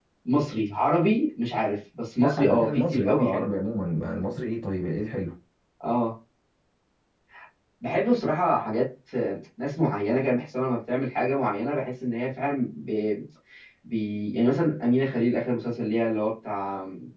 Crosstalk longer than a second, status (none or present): present